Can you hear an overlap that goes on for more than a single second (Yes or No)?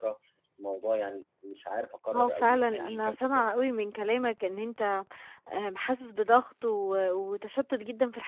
Yes